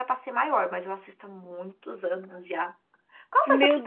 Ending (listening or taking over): taking over